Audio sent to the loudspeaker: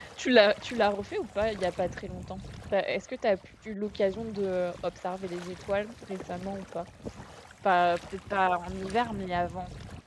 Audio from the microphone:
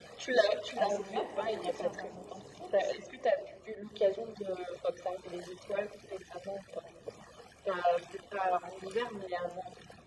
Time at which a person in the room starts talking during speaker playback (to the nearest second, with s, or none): 1 s